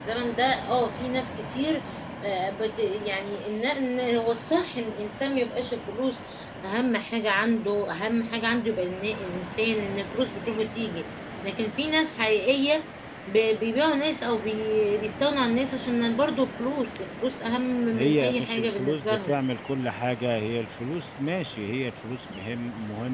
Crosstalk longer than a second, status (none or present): present